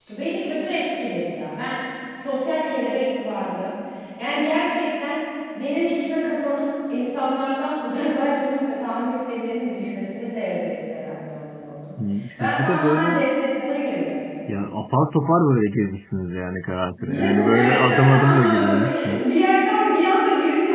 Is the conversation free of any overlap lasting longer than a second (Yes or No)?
No